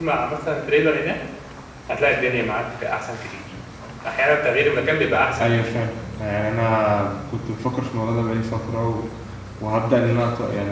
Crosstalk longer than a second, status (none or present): none